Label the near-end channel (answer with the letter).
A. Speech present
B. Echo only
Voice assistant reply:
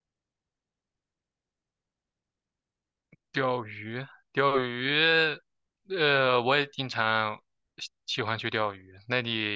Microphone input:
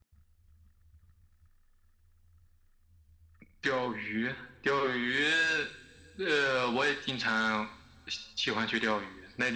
B